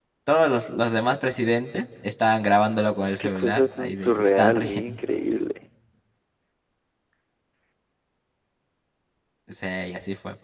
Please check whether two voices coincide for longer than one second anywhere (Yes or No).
Yes